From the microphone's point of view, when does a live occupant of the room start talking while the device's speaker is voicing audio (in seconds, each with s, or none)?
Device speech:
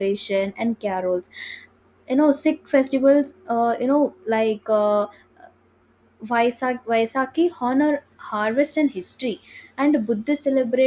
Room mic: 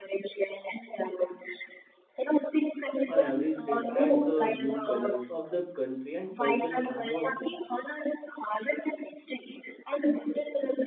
3.1 s